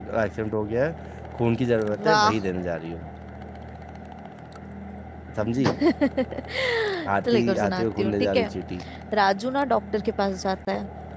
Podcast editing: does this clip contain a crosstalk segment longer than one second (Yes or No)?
Yes